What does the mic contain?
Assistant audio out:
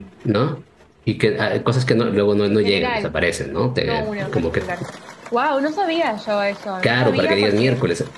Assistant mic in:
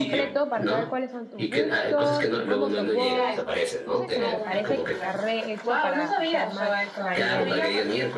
both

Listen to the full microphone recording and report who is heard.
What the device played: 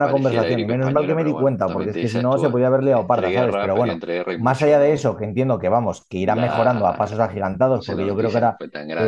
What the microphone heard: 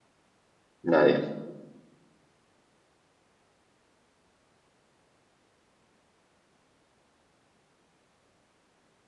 user only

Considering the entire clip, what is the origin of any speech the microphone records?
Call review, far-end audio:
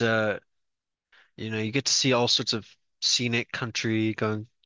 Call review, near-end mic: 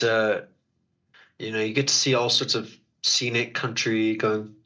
echo only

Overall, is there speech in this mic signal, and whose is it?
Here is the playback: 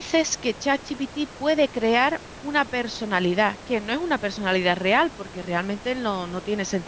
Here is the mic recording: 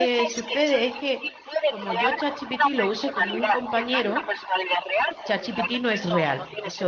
both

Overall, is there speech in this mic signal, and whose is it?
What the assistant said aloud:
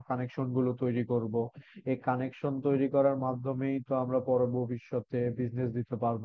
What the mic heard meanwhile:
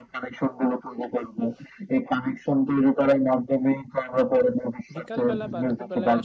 both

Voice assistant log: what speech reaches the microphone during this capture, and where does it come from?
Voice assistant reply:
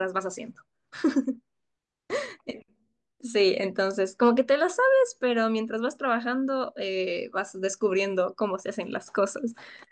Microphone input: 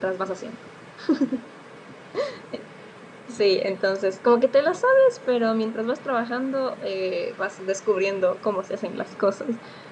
echo only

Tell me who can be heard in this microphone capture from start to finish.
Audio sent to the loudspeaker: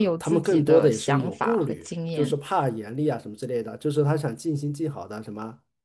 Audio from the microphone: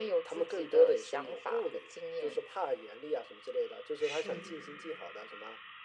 both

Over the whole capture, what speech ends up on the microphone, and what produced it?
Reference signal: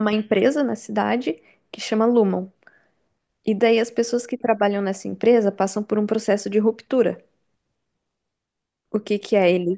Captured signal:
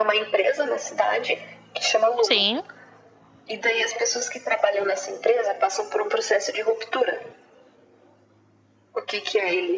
both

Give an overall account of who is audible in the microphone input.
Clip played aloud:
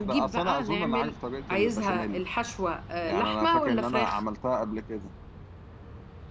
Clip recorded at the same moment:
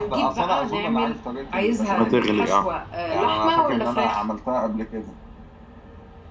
both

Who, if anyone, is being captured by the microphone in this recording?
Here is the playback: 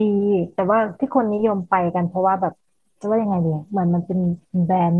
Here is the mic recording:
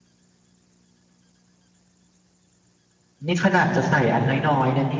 user only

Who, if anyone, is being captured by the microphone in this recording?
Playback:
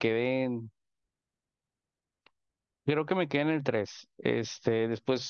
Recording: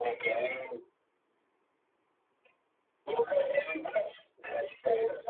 echo only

